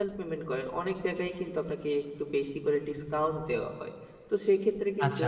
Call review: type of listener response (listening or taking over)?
taking over